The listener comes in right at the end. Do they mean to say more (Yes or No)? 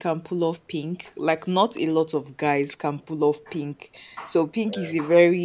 No